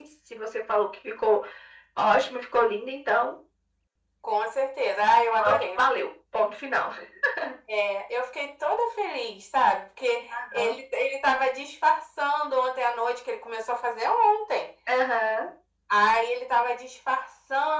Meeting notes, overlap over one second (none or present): none